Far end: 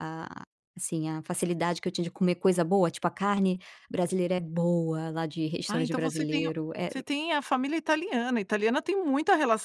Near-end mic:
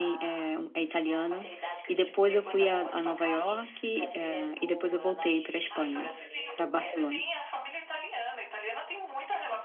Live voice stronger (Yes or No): Yes